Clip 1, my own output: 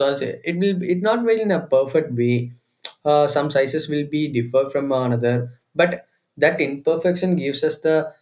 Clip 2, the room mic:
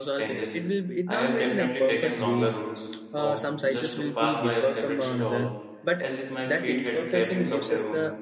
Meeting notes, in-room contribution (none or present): present